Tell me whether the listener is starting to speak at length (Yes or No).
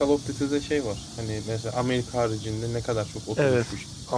Yes